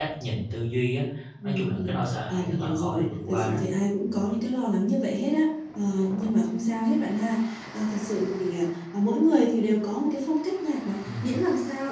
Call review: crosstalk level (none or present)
present